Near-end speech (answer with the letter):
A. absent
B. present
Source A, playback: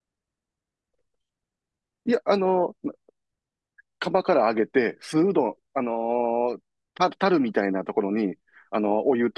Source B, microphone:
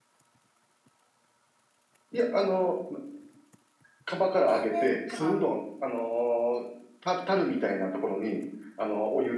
B